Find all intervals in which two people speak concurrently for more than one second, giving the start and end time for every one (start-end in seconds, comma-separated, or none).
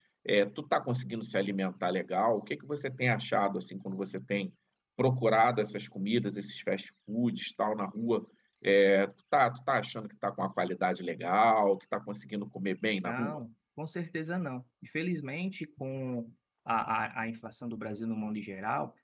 none